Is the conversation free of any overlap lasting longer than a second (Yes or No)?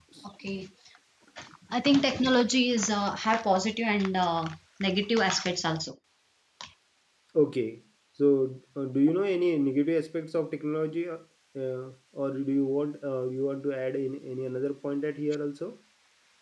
Yes